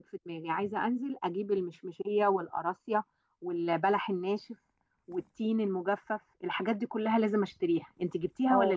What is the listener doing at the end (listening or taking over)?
taking over